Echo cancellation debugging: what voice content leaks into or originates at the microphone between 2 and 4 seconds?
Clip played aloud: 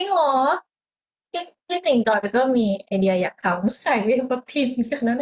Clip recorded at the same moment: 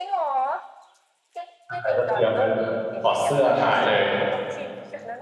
both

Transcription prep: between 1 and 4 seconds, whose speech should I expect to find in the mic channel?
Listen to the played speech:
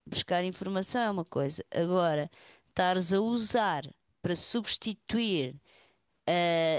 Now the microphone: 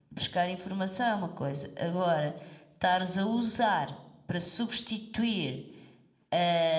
echo only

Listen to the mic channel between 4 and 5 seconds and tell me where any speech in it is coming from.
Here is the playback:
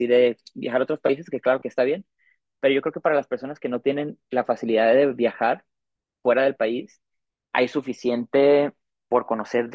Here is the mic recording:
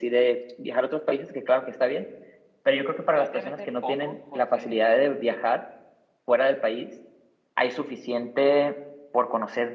both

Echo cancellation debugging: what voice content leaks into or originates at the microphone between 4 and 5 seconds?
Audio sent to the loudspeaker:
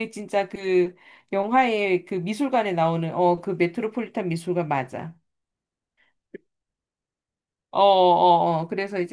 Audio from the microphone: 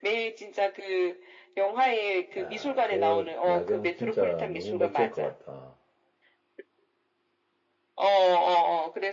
both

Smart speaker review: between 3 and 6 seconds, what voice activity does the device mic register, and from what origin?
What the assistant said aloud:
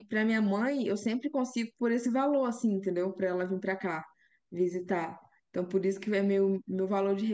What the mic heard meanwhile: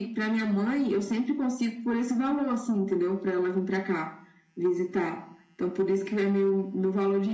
echo only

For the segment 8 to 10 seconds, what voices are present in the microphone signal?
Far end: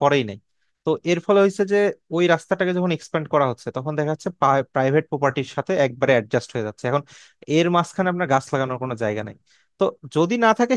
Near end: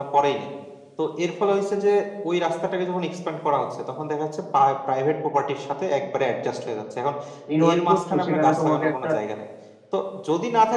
both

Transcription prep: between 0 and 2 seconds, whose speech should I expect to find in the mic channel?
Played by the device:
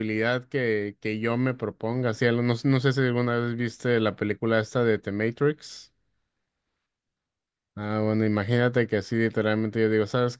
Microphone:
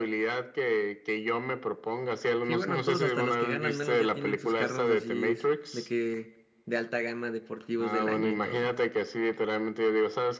echo only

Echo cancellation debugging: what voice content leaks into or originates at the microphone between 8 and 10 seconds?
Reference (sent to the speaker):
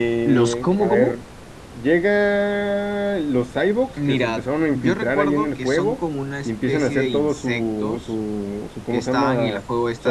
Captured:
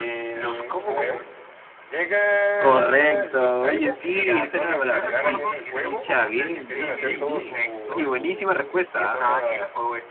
both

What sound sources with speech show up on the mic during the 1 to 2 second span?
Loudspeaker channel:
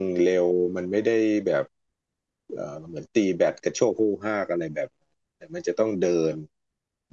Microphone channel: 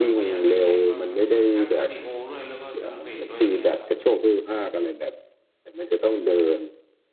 both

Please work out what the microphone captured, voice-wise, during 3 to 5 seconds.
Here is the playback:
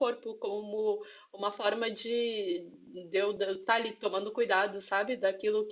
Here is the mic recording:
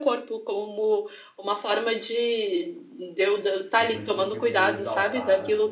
both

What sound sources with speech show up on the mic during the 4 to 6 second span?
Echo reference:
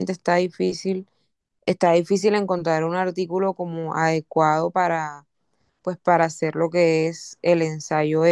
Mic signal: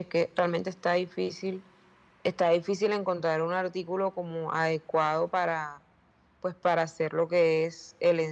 echo only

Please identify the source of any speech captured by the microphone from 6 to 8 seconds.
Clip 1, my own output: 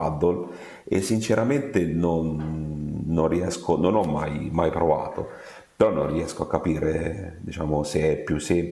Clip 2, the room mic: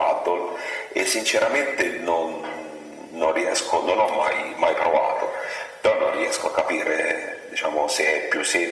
echo only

